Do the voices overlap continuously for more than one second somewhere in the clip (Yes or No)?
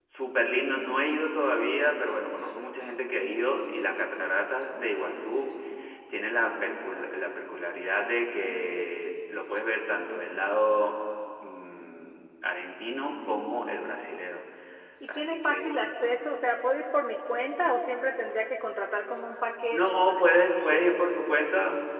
Yes